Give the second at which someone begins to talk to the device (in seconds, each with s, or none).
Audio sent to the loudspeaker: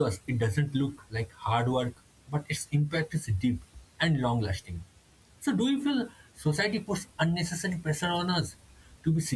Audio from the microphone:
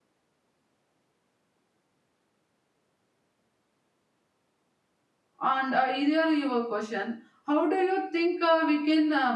5.4 s